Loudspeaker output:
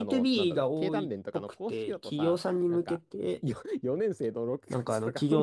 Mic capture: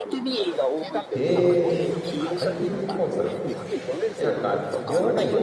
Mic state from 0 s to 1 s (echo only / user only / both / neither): echo only